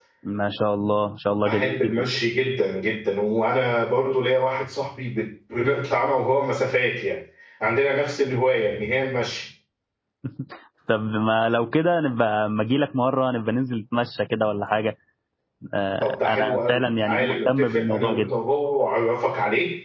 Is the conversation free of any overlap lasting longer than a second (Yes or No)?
No